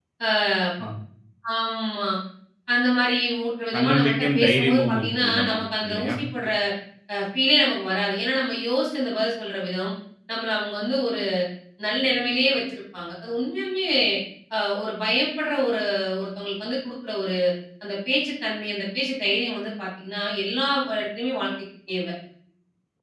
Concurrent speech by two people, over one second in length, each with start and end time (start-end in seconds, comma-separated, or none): 3.7-6.2